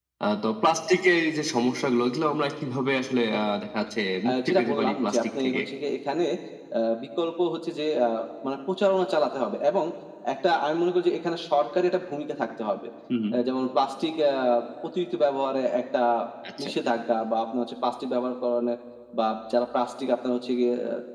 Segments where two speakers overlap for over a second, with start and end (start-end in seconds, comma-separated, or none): 4.3-5.6